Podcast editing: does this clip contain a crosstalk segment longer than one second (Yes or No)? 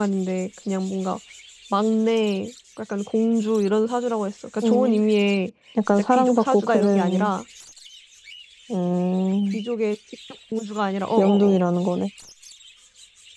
Yes